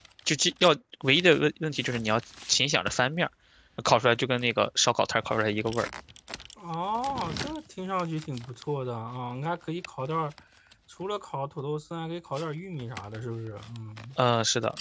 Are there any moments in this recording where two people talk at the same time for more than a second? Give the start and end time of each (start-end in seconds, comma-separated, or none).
none